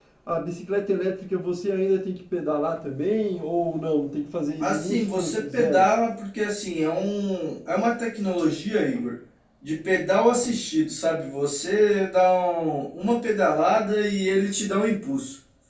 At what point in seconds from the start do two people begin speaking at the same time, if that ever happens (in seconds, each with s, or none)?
4.6 s